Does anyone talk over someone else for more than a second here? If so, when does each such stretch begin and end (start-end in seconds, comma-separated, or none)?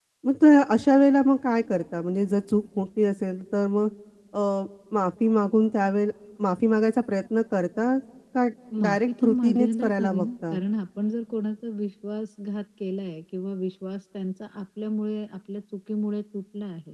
8.8-10.6